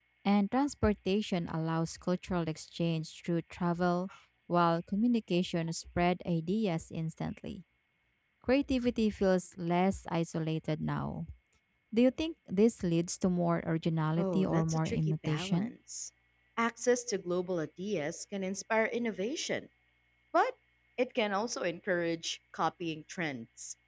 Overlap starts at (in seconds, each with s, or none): 14.2 s